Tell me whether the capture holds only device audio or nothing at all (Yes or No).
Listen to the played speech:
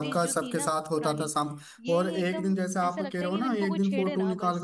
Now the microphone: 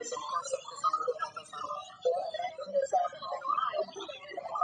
Yes